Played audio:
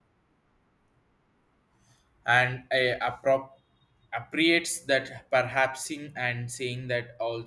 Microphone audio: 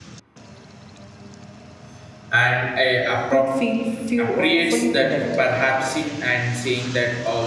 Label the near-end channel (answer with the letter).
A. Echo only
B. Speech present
B